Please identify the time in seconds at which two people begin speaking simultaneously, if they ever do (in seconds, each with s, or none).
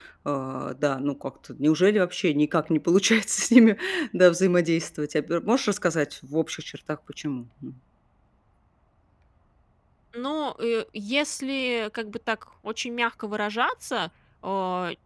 none